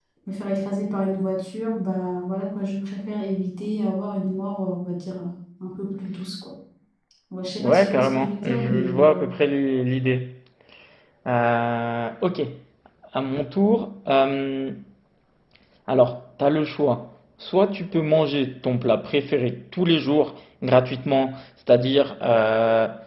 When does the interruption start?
7.6 s

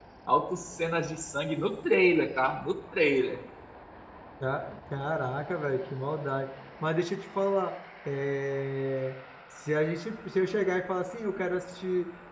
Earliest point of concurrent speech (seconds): none

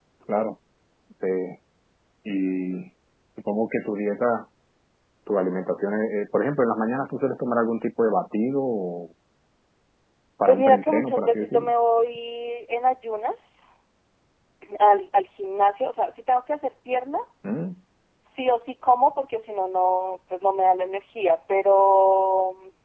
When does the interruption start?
10.5 s

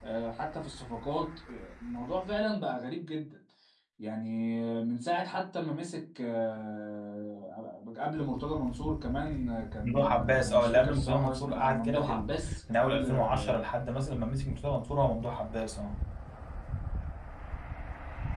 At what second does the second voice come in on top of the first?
9.8 s

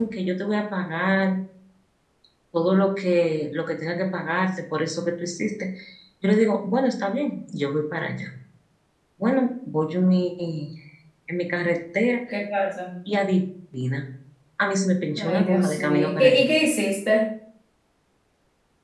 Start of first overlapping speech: 15.2 s

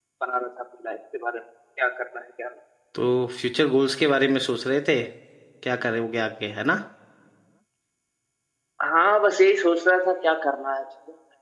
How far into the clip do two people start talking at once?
none

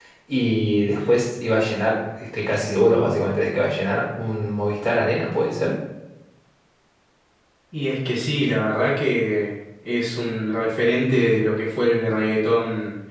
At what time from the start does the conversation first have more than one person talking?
none

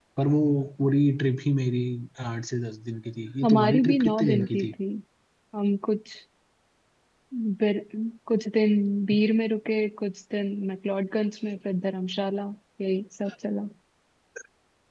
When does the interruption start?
3.4 s

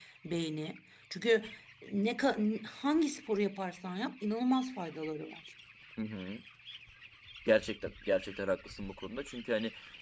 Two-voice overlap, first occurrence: none

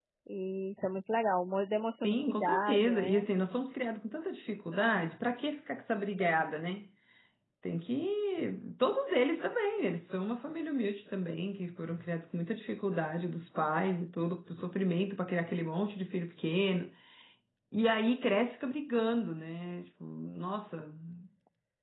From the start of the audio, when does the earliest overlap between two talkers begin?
2.0 s

